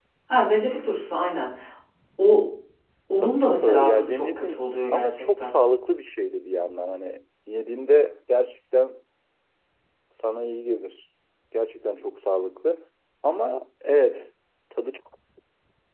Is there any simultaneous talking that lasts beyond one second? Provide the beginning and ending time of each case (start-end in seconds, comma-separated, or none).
3.2-5.5